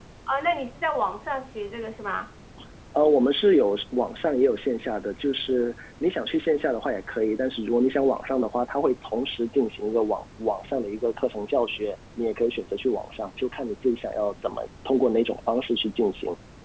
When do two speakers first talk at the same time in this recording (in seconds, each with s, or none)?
none